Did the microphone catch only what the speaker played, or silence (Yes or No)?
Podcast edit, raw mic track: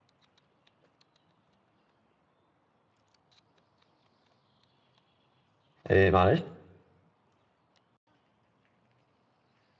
No